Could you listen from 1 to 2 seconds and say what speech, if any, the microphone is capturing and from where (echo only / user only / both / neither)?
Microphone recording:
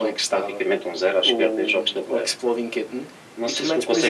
echo only